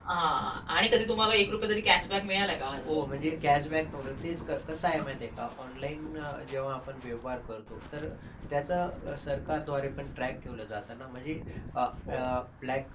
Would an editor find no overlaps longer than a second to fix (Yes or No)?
Yes